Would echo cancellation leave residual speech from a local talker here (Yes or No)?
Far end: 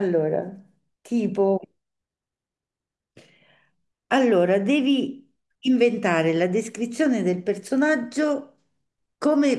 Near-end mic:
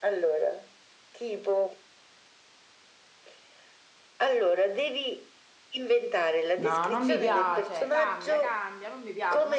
Yes